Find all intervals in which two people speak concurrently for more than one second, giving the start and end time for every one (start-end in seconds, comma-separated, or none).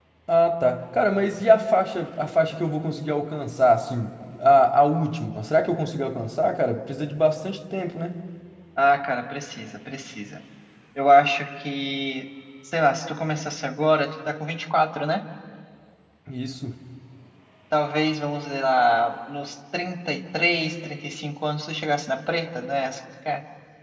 none